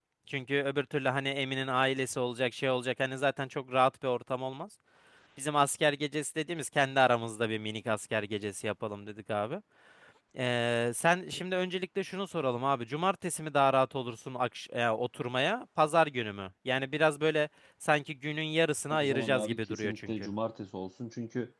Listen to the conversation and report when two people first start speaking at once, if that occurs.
19 s

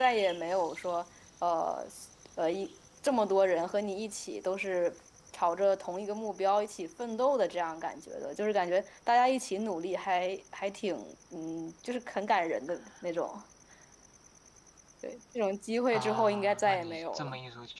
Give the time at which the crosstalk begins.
16 s

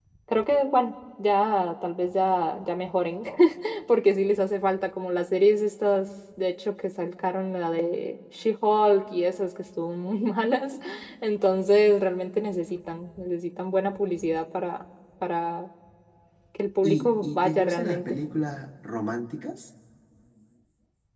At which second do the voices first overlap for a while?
17 s

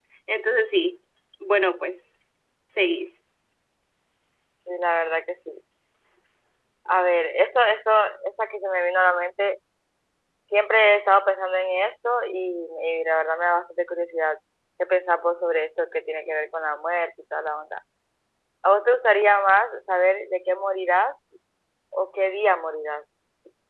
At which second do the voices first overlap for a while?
none

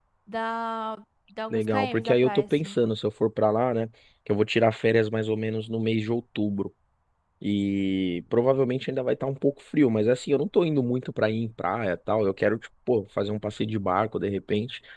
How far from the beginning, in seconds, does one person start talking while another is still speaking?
2 s

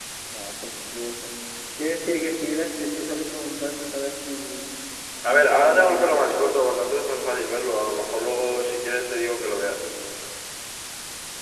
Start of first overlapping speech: 5 s

